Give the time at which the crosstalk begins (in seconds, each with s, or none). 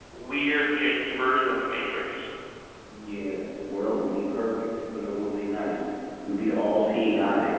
none